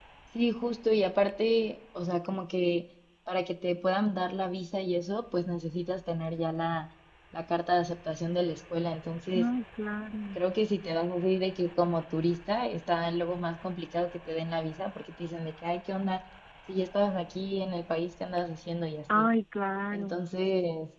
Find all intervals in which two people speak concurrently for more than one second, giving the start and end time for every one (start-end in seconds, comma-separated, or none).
none